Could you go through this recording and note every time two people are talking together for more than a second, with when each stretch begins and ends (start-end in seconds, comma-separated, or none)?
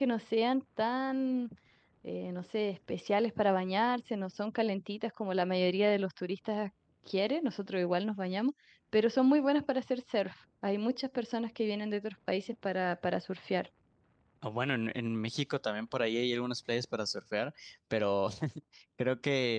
none